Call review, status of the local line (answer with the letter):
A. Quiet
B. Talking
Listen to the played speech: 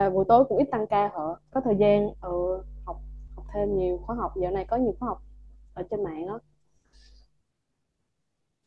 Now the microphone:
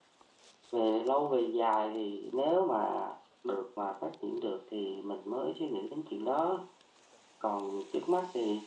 B